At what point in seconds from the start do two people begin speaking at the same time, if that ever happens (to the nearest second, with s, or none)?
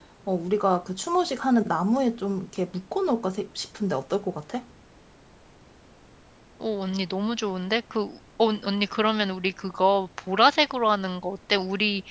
none